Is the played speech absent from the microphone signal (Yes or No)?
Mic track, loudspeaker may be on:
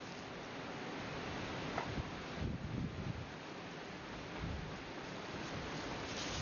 Yes